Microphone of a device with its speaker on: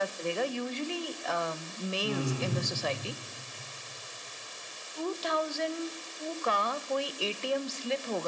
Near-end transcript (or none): हम्म